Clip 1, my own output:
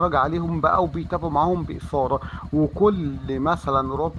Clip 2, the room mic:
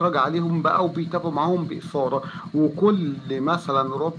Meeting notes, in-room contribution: none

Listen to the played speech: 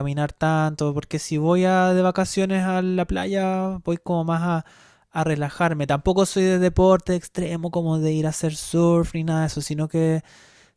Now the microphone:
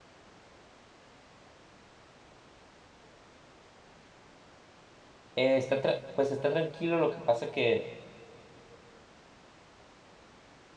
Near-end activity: present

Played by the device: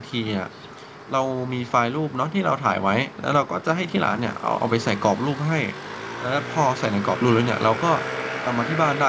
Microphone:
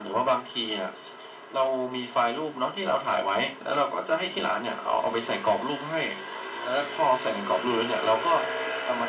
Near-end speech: none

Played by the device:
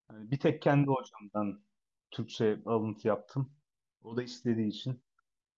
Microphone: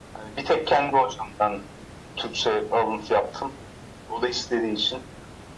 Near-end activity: none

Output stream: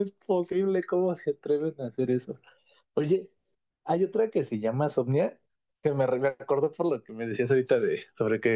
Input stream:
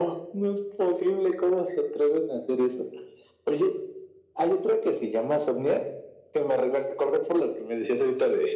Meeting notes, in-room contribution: none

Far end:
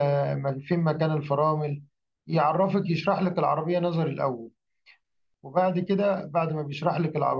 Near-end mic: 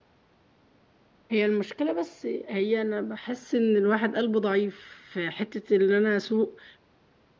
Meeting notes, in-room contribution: present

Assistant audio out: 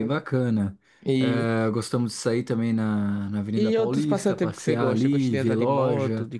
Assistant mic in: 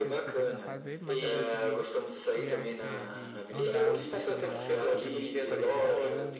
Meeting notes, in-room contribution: present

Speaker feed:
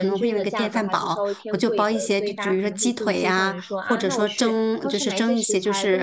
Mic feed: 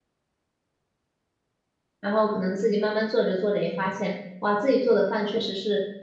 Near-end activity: present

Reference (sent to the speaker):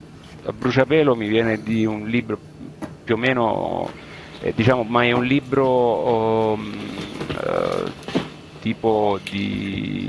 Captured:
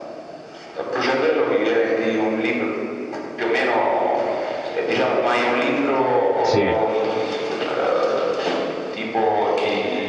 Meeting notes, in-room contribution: present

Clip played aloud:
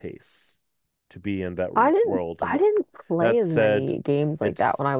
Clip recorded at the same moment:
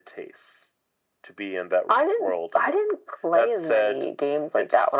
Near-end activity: none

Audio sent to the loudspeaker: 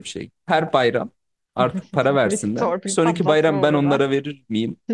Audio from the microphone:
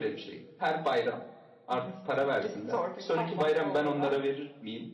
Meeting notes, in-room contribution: none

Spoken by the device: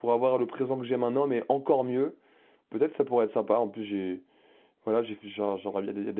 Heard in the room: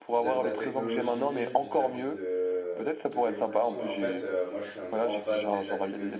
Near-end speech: present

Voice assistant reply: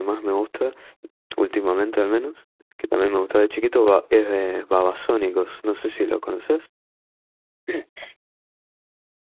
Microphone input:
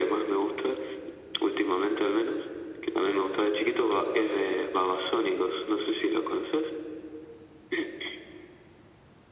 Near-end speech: none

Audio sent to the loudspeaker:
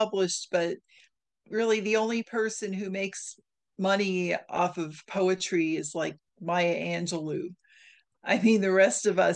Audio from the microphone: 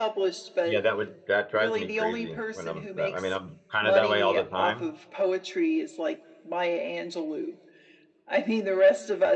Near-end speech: present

